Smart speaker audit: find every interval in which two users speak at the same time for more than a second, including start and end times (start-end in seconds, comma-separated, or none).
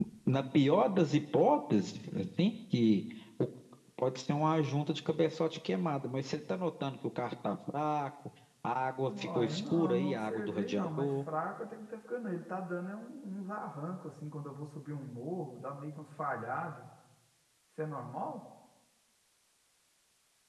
9.1-11.1